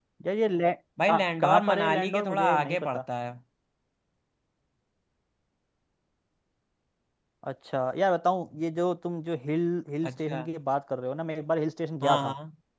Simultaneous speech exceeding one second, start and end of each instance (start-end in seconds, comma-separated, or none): 1.1-3.0